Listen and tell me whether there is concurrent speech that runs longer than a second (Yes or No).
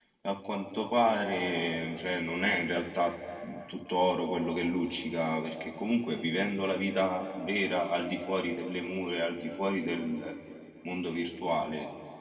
No